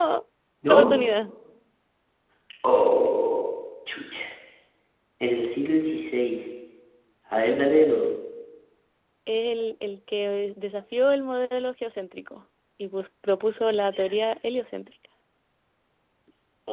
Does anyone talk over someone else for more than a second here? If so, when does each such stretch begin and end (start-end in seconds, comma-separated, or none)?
none